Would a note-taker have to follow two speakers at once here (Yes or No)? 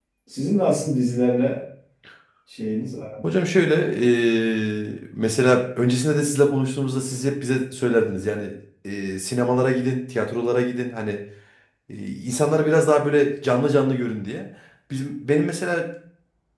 No